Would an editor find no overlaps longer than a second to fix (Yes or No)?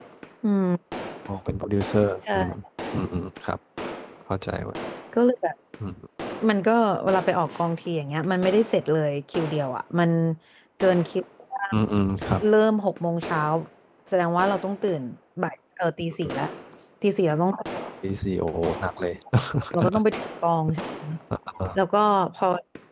Yes